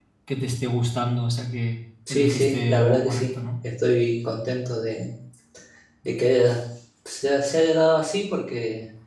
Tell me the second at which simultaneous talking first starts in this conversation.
2.1 s

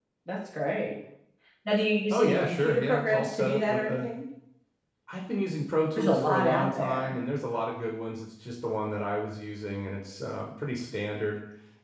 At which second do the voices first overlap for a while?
2.1 s

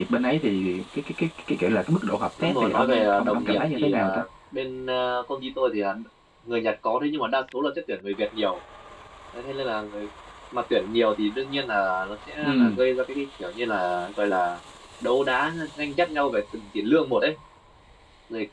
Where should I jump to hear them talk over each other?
2.4 s

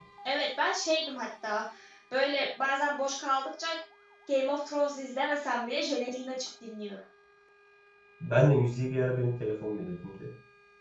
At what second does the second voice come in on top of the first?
none

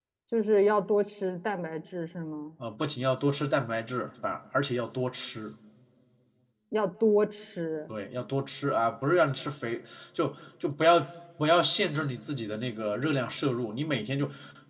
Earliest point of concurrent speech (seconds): none

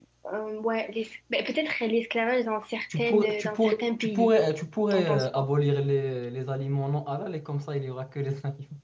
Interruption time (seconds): 3.0 s

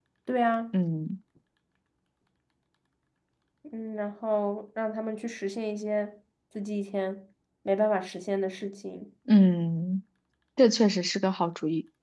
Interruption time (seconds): none

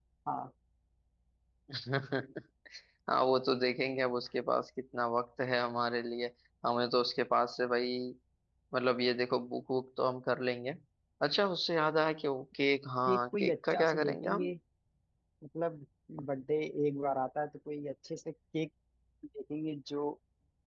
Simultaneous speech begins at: 13.1 s

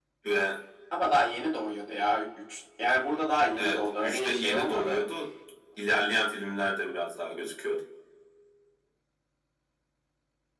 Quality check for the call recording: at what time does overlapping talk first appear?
3.6 s

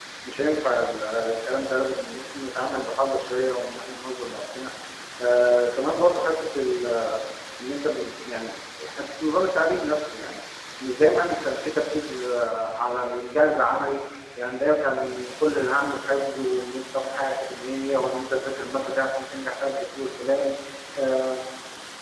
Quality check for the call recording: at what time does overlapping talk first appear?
none

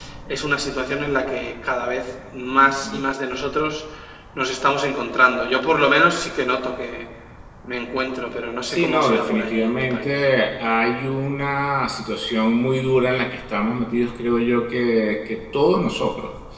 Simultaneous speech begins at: 8.7 s

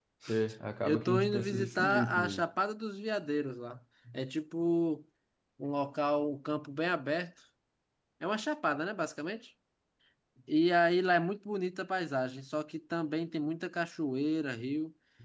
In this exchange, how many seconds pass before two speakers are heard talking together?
0.8 s

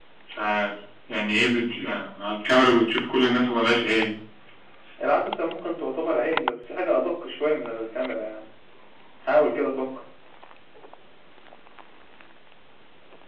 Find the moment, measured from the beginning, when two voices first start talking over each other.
none

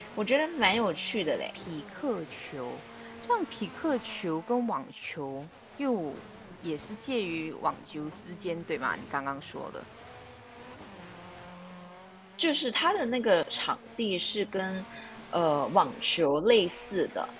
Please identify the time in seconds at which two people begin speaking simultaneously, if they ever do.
none

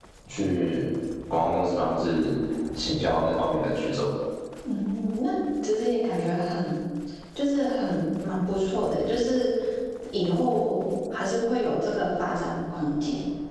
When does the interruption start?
none

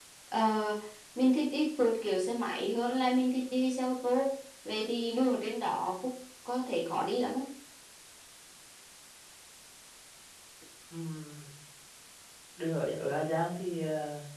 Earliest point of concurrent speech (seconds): none

